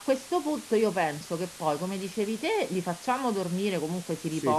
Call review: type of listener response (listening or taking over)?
listening